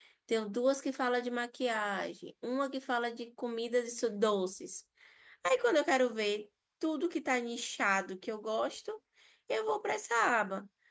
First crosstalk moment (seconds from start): none

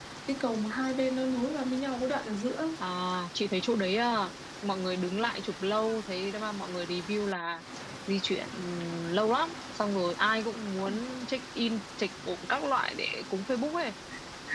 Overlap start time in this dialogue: none

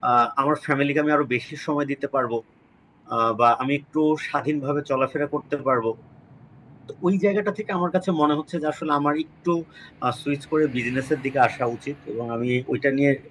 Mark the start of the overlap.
none

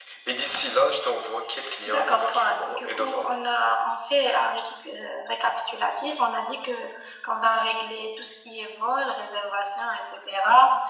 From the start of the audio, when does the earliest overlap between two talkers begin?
1.9 s

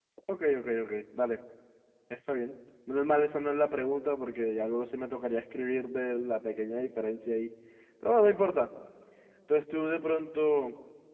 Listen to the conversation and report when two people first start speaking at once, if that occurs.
none

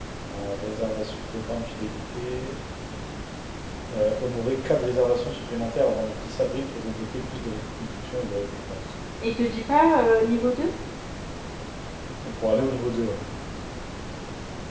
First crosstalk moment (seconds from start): none

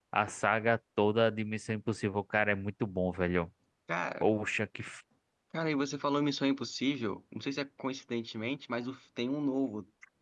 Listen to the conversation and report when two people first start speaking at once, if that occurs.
none

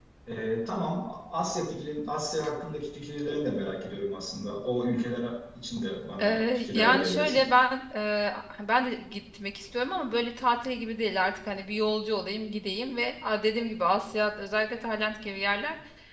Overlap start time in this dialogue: 6.2 s

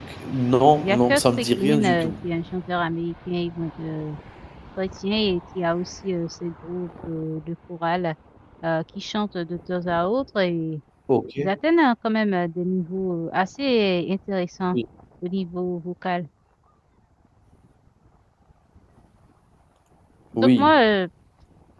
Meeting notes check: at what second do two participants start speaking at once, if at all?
0.8 s

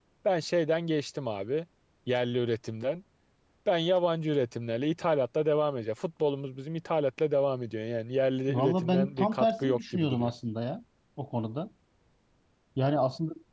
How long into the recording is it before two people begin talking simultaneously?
8.5 s

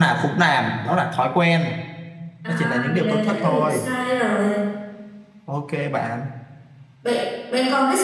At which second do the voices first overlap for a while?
2.5 s

